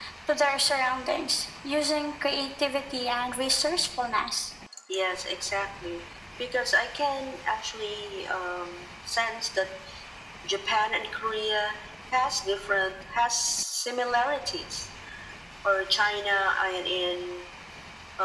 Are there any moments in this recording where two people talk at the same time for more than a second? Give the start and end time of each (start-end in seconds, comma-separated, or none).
none